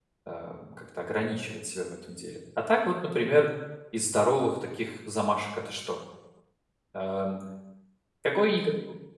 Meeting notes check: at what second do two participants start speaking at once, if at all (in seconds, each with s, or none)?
none